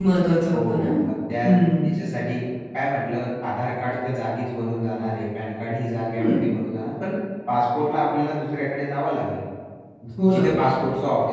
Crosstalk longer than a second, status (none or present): none